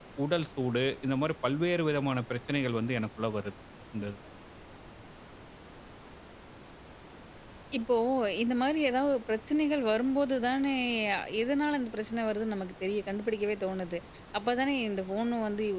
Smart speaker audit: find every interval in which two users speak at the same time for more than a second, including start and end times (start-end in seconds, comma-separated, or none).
none